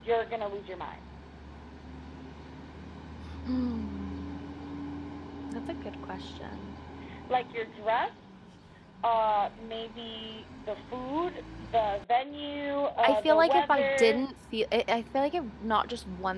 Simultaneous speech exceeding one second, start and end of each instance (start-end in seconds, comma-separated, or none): 13.0-14.2